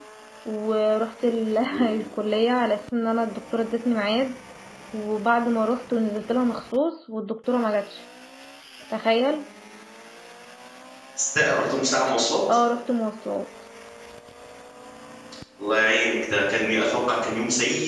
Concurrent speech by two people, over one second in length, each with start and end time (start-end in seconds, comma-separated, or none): none